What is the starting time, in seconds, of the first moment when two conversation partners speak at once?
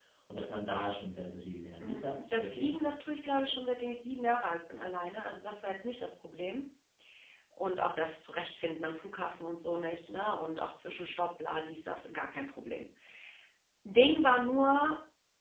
2 s

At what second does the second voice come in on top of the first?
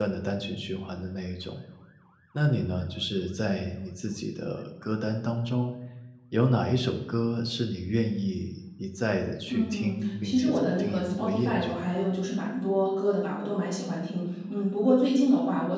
10 s

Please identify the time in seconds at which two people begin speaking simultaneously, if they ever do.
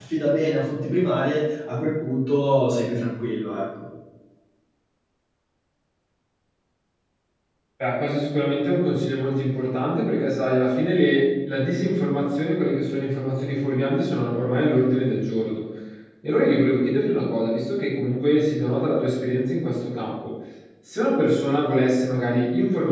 none

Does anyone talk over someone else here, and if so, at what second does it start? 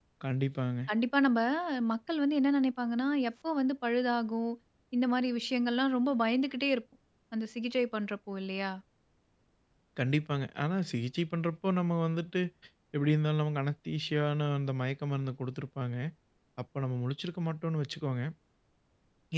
none

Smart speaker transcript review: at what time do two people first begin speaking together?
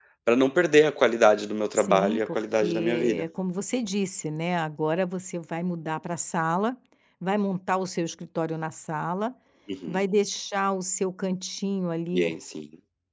2 s

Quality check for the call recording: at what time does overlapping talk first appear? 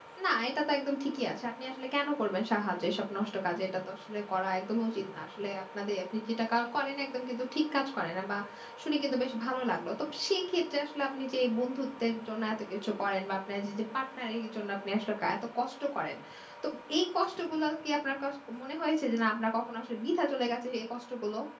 none

